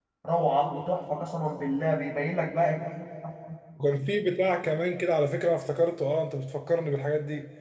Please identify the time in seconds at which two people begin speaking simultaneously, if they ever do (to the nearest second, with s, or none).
none